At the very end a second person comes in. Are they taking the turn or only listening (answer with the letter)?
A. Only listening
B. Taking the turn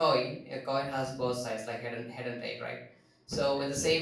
A